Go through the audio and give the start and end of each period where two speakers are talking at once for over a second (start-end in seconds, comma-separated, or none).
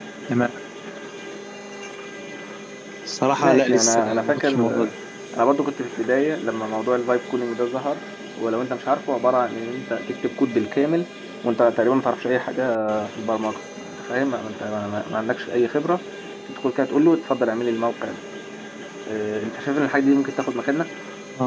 3.4-4.9